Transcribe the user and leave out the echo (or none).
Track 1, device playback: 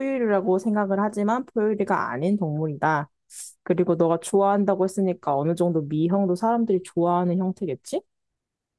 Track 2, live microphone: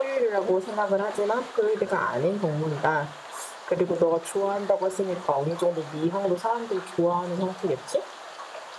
none